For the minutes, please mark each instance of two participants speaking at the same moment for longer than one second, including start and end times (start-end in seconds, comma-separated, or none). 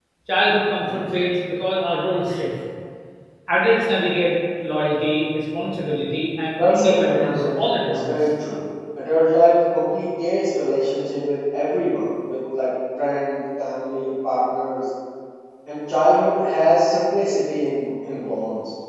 6.7-8.1